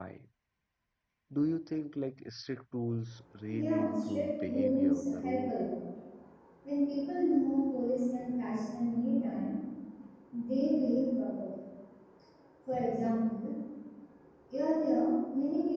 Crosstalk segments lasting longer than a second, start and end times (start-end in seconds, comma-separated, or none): 3.5-5.5